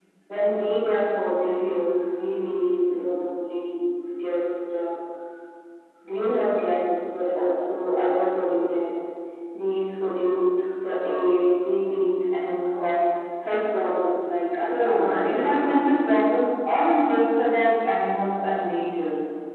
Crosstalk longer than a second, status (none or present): present